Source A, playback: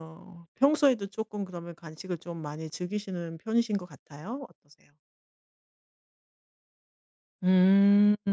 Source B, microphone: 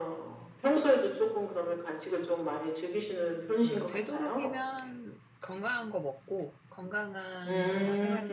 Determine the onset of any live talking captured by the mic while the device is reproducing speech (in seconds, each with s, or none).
3.6 s